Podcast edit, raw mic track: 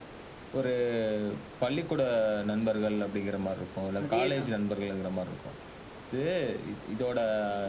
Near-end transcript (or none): அதேதான்.